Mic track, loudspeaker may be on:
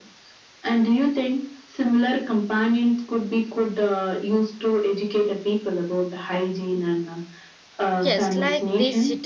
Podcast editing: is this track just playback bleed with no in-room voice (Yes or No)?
No